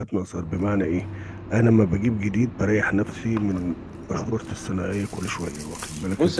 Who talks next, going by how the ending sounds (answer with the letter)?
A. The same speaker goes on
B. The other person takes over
B